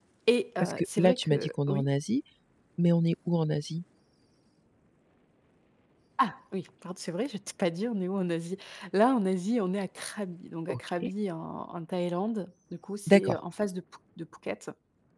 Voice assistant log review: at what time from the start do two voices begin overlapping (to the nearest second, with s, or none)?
1 s